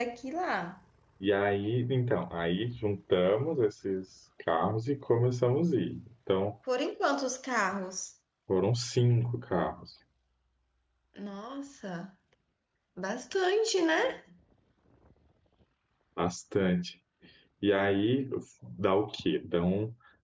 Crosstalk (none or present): none